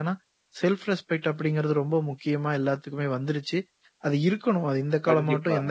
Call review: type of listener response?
listening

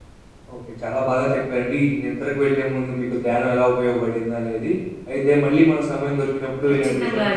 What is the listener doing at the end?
listening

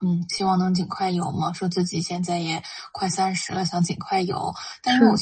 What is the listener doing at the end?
listening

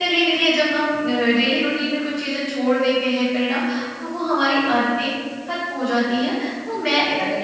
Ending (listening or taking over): listening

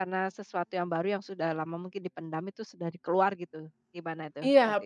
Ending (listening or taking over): taking over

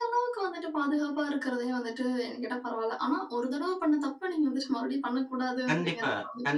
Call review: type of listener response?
taking over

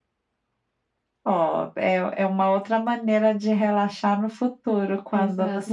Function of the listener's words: taking over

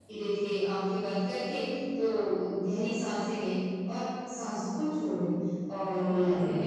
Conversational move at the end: listening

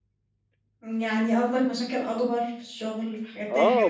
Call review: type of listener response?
taking over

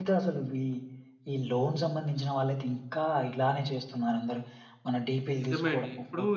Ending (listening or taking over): taking over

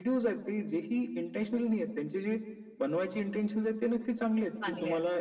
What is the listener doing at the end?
listening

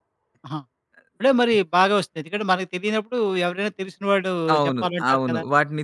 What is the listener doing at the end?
taking over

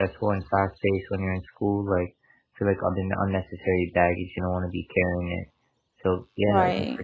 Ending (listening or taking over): listening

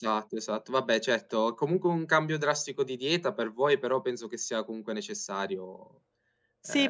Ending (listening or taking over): taking over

